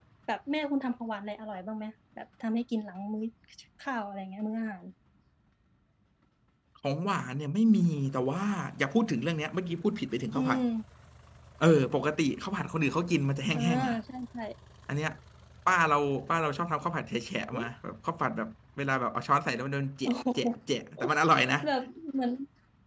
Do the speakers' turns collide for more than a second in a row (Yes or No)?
No